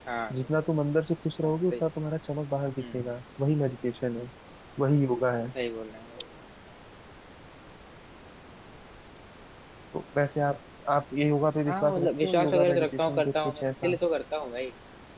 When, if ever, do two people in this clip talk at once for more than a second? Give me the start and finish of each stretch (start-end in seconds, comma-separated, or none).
11.7-14.0